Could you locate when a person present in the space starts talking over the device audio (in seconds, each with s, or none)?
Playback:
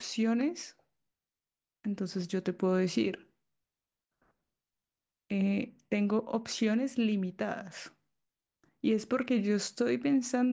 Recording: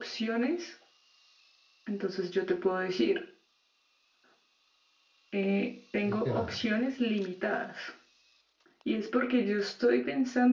6.0 s